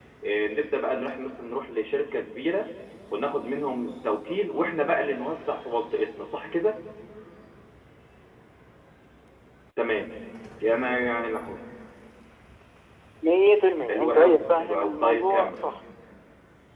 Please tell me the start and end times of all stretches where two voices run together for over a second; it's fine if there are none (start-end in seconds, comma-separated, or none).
13.9-15.6